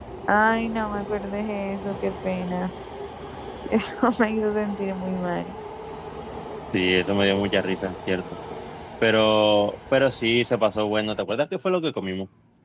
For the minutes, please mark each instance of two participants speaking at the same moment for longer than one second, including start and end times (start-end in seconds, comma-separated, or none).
none